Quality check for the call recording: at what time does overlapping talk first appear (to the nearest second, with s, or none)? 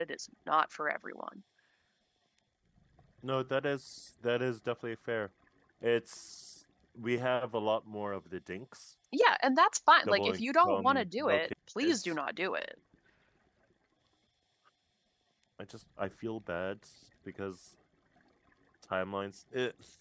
10 s